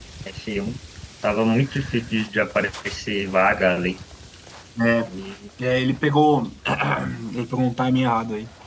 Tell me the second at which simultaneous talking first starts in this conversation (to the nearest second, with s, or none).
none